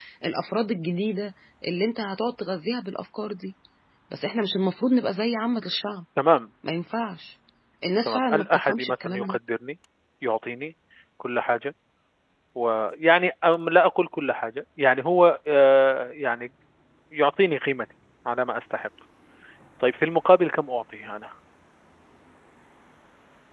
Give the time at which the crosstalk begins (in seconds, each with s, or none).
8.1 s